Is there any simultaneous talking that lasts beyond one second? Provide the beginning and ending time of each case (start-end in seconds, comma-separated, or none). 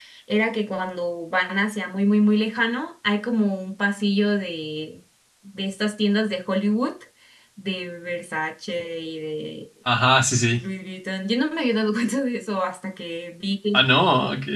none